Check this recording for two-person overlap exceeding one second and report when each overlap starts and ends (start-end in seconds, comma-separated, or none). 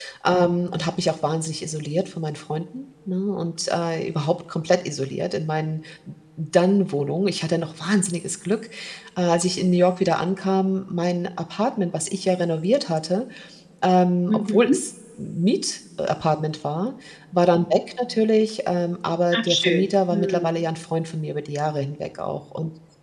19.3-20.6